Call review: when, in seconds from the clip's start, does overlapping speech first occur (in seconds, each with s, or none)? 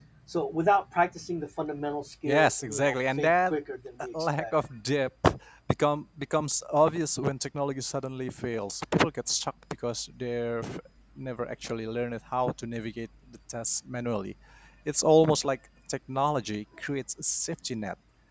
2.2 s